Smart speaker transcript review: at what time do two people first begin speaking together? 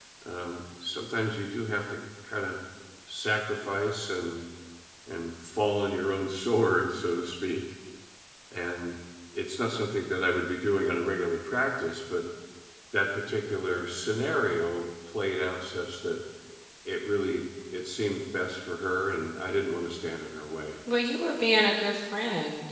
none

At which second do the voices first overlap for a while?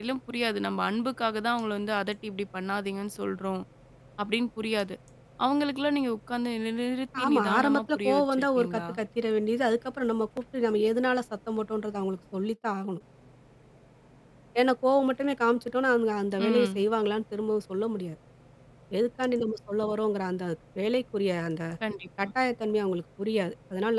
7.2 s

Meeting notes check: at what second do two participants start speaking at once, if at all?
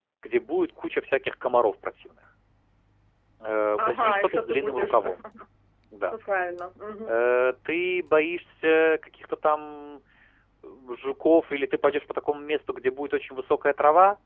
3.8 s

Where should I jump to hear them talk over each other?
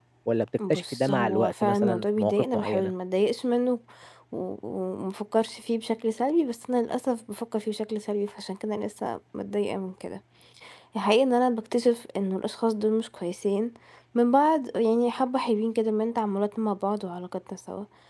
0.7 s

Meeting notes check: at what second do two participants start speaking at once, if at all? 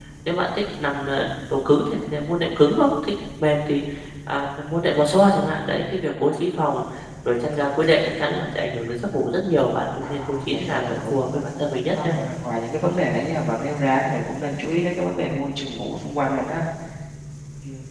10.0 s

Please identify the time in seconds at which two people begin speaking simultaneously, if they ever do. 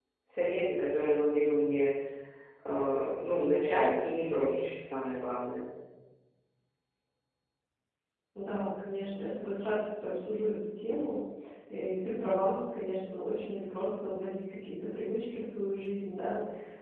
none

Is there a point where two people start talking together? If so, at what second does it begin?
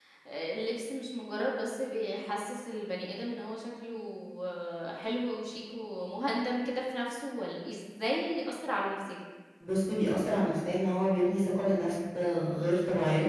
none

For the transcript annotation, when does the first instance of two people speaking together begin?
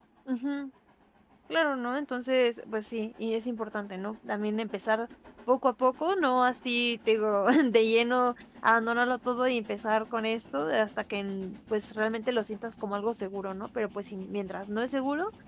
none

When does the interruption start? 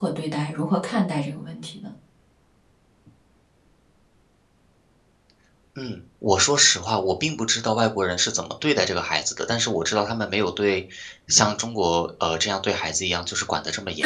none

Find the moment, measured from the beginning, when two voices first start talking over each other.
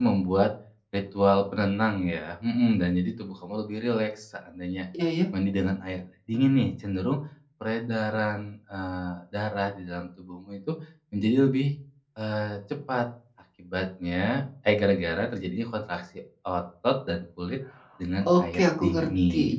18.2 s

